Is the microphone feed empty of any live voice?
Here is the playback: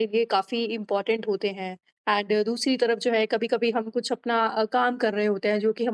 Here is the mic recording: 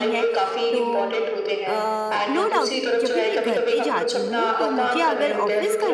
No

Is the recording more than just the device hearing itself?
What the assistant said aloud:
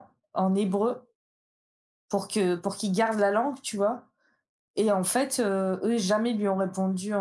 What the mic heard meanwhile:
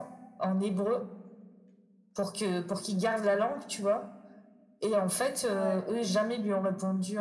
Yes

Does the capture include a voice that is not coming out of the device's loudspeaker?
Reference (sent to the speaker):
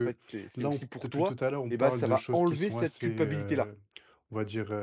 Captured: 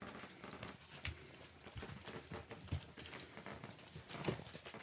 No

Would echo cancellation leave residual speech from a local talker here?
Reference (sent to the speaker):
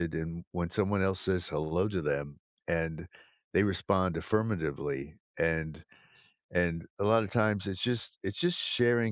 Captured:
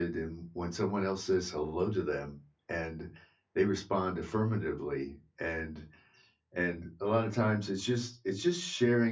No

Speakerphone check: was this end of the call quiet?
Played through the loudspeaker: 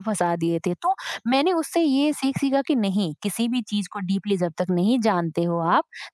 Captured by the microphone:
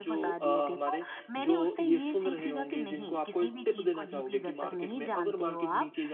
No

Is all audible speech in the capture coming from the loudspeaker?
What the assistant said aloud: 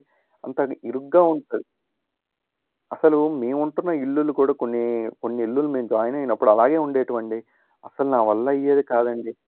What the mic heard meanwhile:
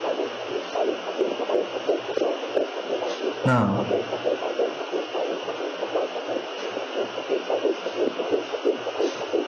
No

